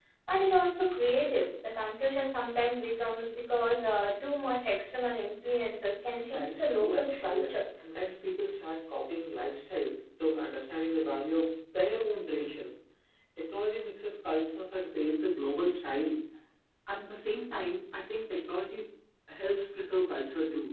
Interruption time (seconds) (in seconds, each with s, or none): 6.2 s